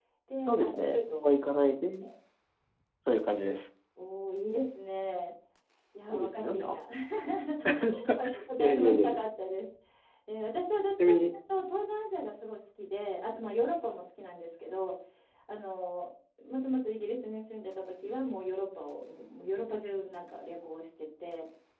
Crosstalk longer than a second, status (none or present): present